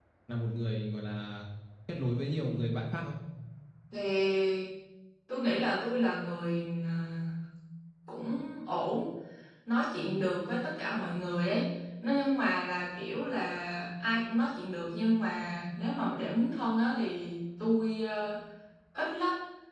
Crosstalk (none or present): none